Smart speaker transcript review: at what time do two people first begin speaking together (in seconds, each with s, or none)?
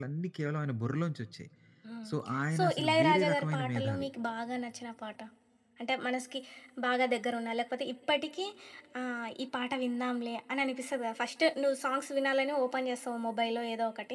2.6 s